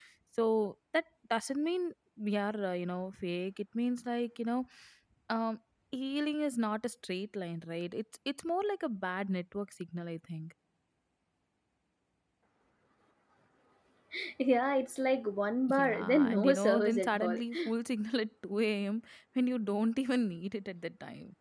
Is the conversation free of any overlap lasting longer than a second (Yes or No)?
No